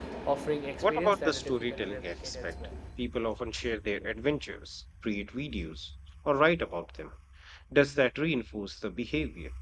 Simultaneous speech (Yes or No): Yes